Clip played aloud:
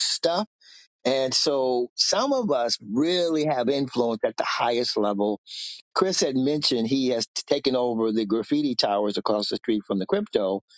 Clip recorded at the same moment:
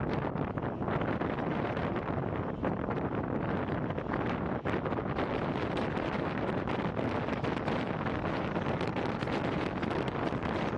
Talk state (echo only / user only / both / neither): neither